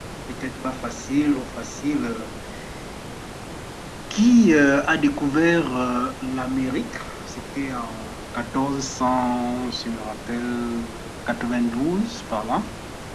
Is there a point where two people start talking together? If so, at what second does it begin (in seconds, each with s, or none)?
none